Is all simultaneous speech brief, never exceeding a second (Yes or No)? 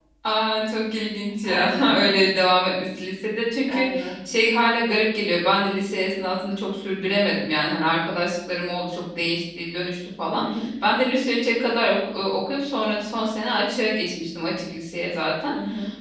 Yes